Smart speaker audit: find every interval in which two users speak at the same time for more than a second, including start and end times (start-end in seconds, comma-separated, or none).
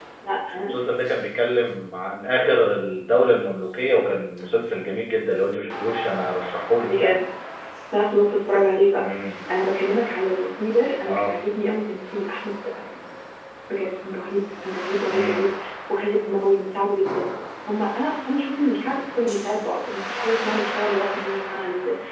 none